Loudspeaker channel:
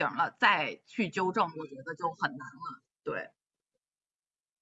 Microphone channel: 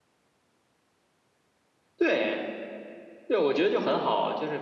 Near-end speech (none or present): present